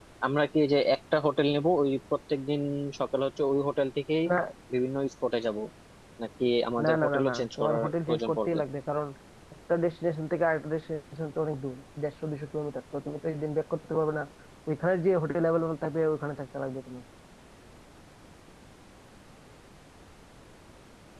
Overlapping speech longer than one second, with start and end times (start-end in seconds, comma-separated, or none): 6.8-8.6